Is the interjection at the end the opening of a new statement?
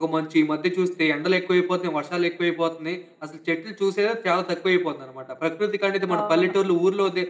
No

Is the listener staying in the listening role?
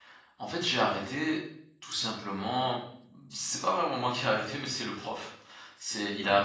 Yes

